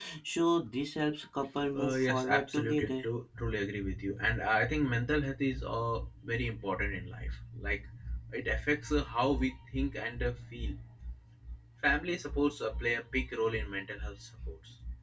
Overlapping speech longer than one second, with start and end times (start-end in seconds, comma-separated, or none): 1.8-3.1